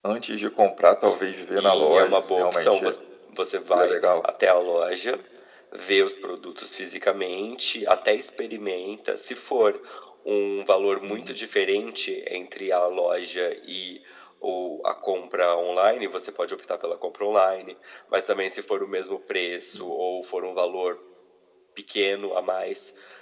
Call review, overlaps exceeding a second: present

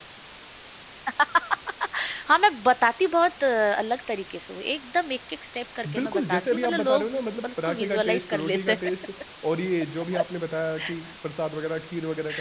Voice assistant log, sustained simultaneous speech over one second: present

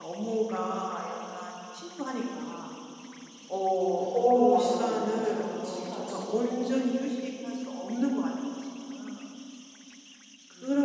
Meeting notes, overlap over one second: present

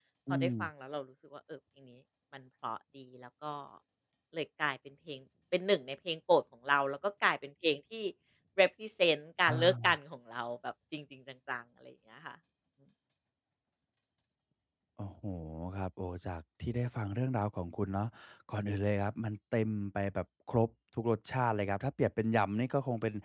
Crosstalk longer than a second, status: none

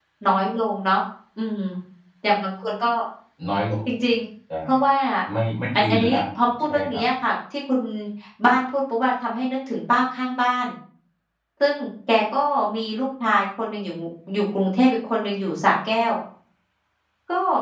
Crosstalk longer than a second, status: none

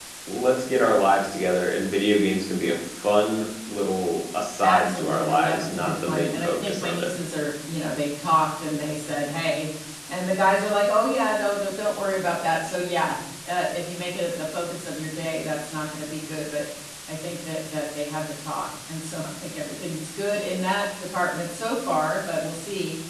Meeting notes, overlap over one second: present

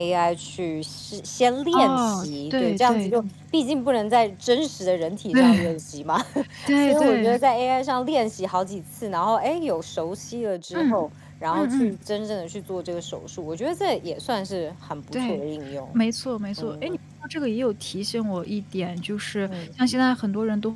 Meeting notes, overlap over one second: present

